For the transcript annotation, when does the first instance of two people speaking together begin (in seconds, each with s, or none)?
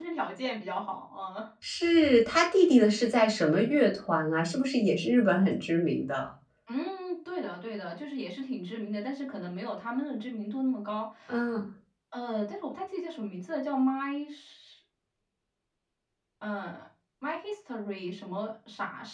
none